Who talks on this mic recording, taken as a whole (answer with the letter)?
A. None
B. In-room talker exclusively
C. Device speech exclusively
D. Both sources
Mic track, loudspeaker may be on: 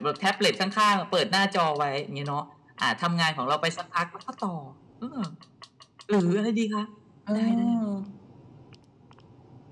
D